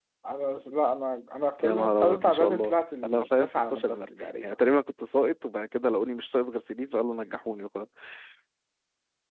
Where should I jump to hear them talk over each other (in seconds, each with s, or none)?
1.6 s